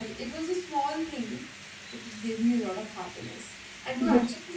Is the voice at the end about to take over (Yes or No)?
No